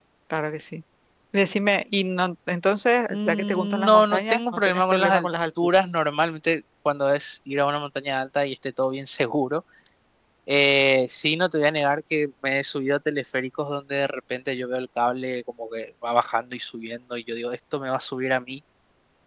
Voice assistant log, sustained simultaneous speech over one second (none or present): present